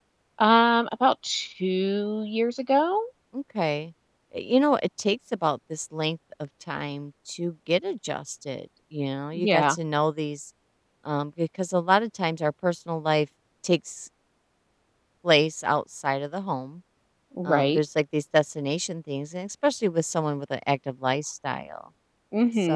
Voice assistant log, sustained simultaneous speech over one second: none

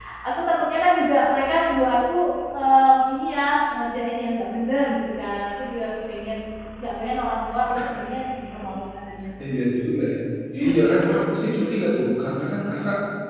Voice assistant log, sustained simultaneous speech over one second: none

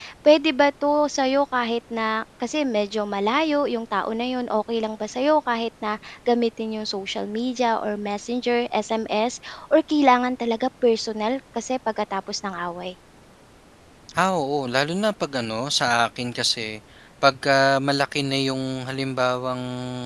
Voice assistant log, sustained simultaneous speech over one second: none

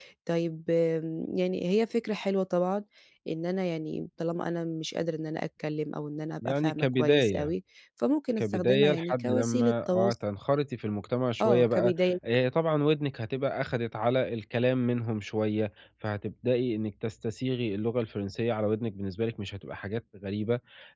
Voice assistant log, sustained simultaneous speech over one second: present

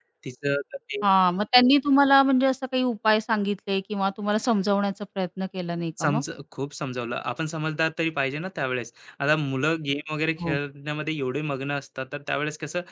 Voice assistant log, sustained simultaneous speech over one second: none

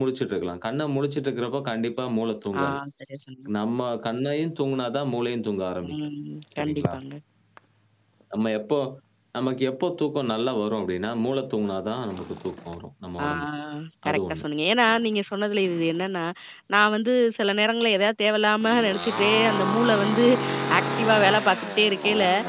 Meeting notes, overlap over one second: none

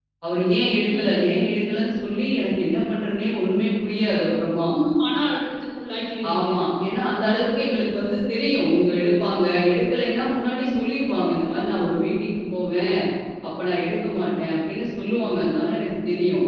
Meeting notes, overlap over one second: none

